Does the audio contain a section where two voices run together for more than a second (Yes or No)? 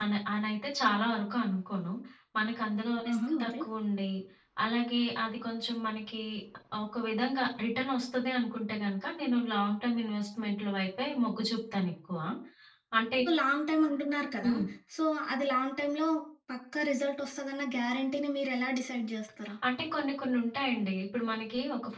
No